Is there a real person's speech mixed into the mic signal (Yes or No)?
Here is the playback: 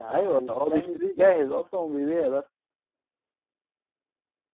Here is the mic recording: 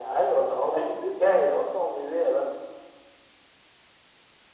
No